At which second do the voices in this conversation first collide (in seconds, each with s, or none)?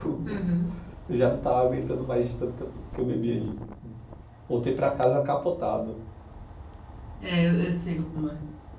none